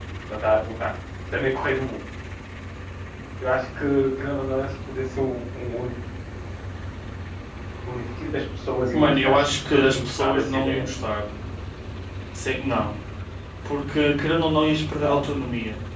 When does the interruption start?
8.9 s

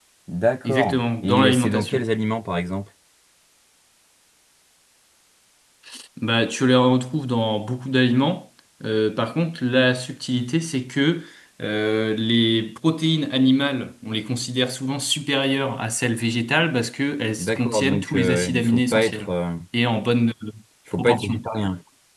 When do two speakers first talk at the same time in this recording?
0.6 s

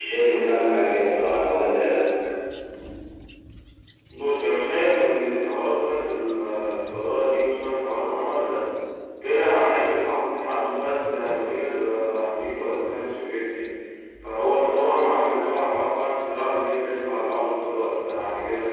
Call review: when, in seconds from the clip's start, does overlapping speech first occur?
none

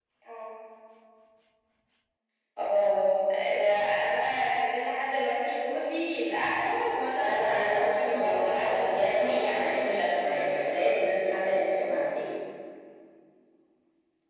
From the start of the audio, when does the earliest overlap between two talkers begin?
7.1 s

